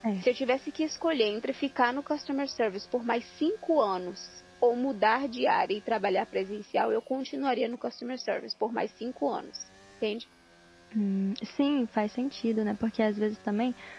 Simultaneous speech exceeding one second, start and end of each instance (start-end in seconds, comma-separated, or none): none